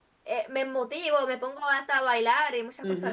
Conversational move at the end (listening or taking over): taking over